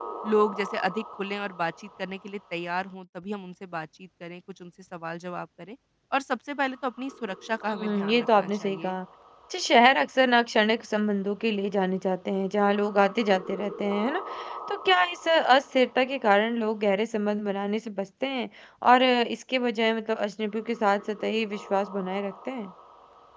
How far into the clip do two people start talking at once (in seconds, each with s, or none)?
7.7 s